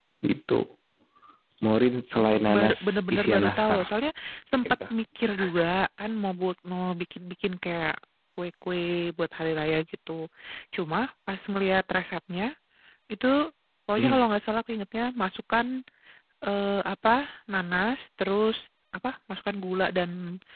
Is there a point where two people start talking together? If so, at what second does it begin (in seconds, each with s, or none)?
2.1 s